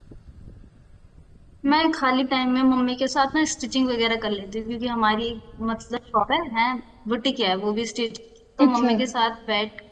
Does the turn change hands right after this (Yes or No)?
No